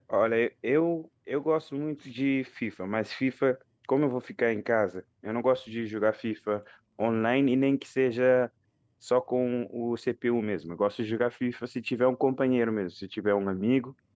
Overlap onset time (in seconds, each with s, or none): none